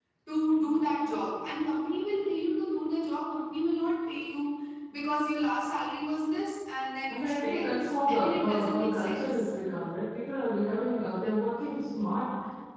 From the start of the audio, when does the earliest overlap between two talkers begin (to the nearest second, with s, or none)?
7 s